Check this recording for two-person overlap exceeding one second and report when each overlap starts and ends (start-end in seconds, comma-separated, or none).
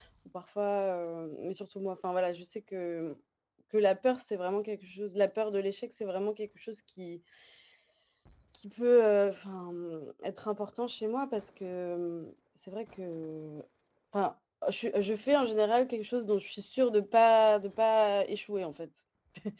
none